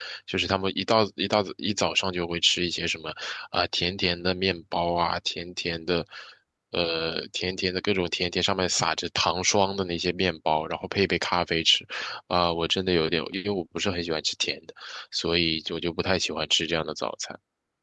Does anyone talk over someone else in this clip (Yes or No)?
No